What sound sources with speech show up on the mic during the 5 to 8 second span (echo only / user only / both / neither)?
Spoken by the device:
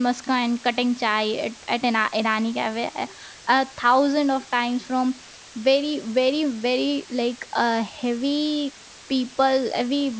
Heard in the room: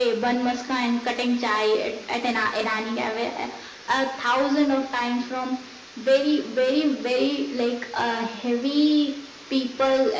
echo only